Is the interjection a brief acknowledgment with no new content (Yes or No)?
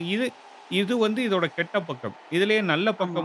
Yes